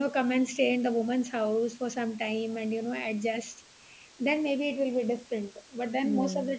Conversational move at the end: listening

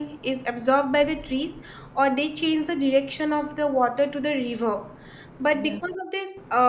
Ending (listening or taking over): listening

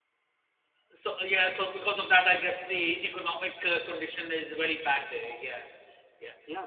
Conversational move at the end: taking over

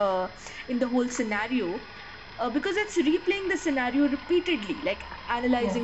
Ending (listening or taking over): listening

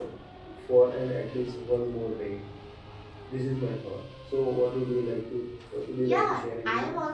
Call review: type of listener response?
taking over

